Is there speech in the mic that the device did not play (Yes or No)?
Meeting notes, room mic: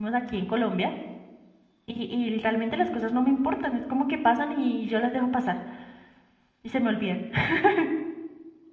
Yes